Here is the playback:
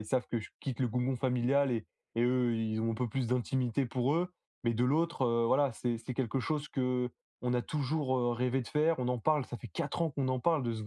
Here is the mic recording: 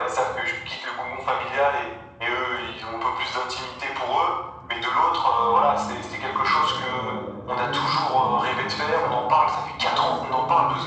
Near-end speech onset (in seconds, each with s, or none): 5.3 s